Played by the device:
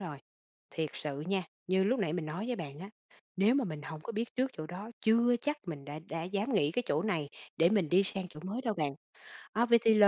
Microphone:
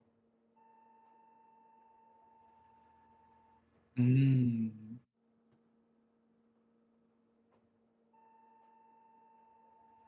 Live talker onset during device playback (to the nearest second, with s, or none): 4 s